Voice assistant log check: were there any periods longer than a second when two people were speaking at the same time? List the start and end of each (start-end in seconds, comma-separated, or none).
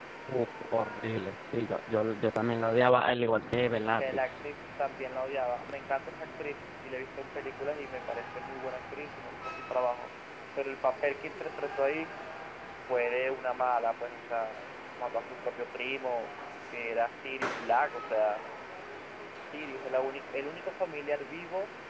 none